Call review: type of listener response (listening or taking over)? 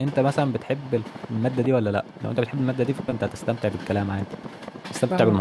taking over